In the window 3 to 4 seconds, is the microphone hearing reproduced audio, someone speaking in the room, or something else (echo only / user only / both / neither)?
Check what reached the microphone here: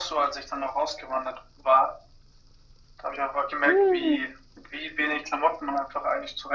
both